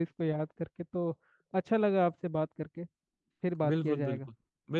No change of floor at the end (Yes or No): No